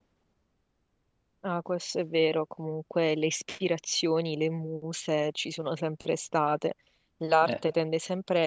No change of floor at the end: Yes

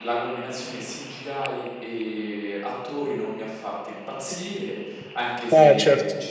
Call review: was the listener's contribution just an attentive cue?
Yes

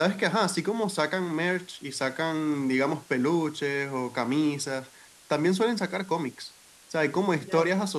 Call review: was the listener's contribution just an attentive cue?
Yes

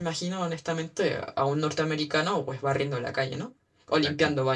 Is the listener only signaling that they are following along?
No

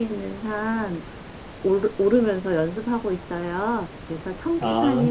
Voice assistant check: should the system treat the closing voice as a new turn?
No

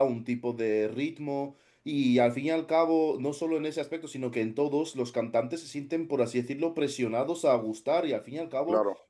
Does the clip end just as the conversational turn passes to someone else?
No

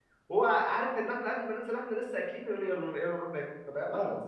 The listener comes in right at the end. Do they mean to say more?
No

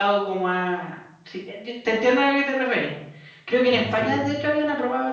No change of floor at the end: Yes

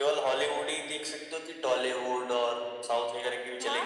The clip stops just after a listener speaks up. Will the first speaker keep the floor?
No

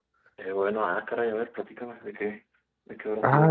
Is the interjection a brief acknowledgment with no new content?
No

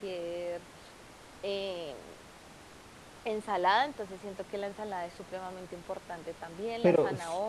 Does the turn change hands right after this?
Yes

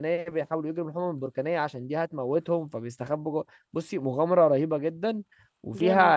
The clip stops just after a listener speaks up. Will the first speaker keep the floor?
Yes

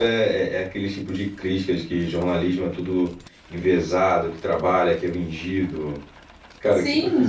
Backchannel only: No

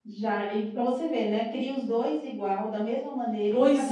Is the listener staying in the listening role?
No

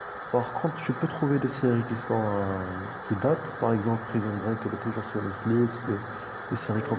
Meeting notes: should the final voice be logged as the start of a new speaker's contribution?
No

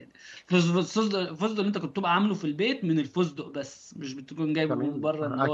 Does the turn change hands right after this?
Yes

